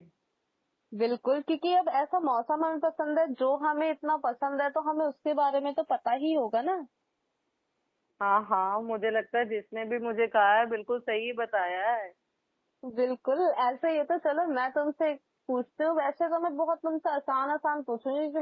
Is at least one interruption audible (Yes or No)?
No